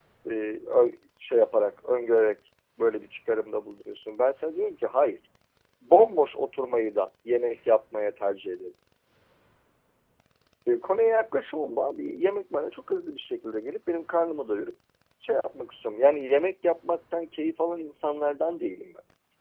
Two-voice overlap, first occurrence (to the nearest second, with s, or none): none